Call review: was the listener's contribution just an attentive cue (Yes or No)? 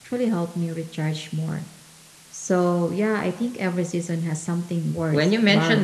No